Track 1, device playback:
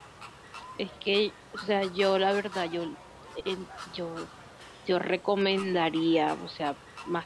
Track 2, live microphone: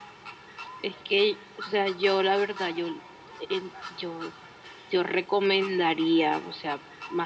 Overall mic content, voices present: echo only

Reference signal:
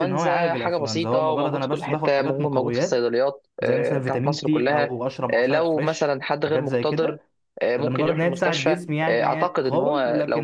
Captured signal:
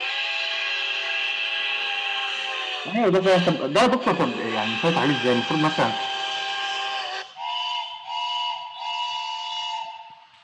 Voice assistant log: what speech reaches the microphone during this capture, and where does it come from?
user only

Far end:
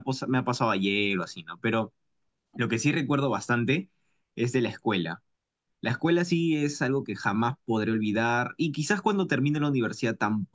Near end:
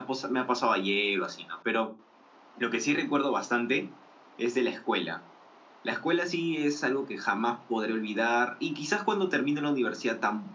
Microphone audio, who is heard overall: echo only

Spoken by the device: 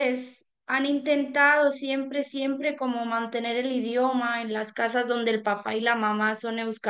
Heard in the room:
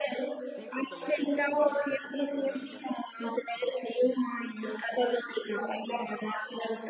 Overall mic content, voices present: both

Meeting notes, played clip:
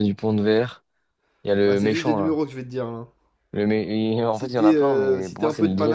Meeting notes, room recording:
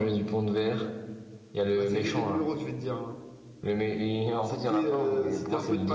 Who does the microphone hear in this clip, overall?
echo only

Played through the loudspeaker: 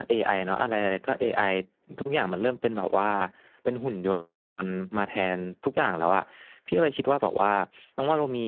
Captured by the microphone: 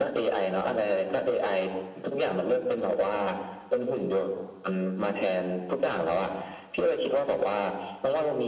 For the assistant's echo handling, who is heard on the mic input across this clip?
echo only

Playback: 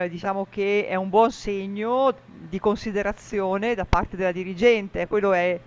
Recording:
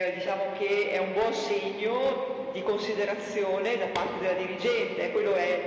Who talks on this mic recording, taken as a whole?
echo only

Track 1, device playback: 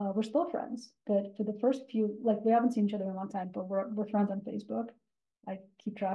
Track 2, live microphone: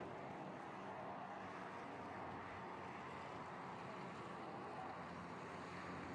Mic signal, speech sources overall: neither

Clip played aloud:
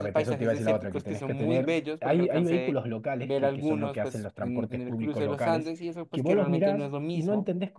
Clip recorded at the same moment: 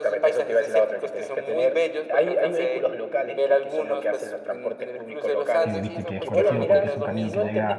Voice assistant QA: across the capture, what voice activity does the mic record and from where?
both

